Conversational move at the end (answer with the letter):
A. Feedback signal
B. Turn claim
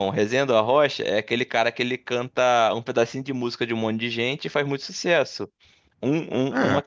A